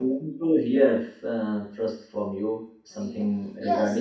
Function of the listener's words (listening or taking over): taking over